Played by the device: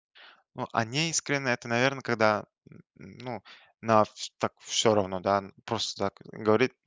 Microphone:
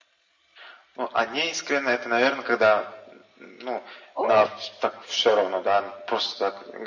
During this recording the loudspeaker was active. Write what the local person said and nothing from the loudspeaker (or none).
О,